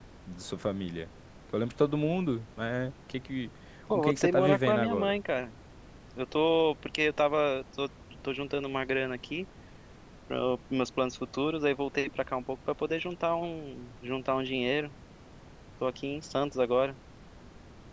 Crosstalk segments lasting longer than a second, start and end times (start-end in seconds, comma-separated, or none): 3.9-5.1